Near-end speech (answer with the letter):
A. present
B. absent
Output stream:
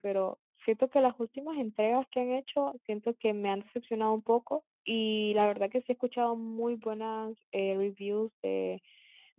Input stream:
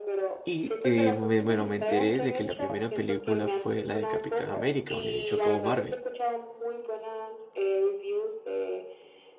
A